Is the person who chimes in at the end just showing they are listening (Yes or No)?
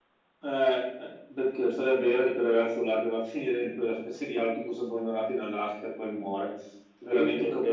No